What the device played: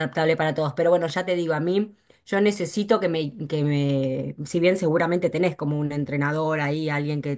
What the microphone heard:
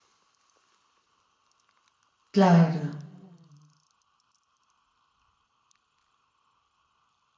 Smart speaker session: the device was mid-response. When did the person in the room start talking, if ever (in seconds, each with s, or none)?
2.3 s